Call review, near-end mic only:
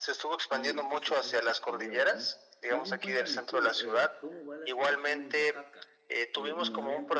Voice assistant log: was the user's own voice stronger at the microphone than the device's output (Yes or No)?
No